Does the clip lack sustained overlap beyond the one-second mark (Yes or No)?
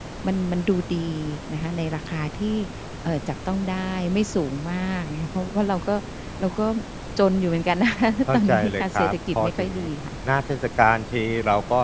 No